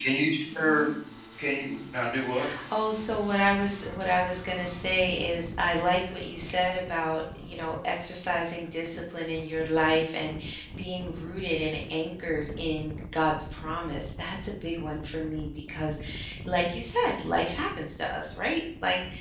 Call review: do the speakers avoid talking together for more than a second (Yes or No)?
Yes